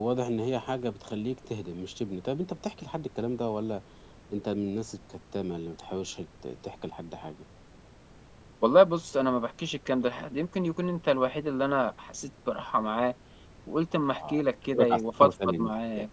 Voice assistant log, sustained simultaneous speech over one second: present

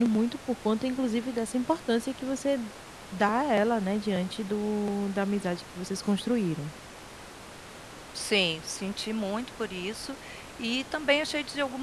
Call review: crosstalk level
none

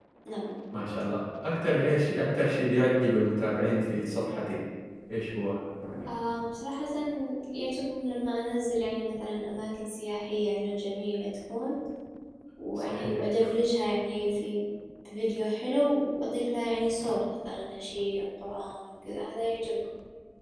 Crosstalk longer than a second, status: none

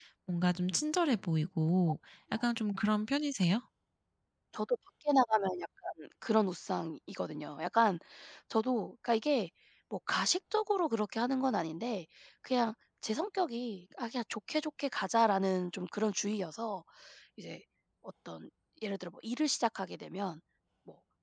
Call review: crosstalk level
none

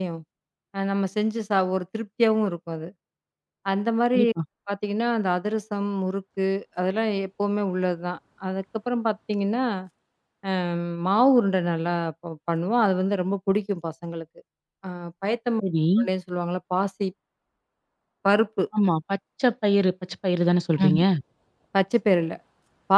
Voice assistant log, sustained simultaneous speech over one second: none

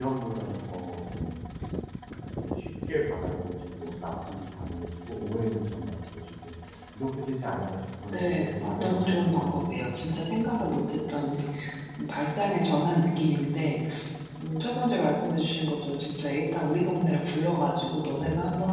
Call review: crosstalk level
present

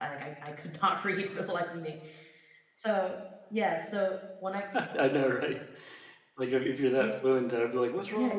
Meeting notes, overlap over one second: none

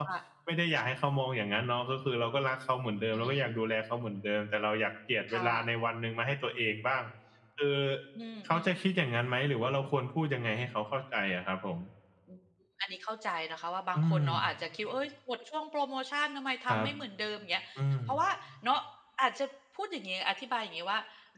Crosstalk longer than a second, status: none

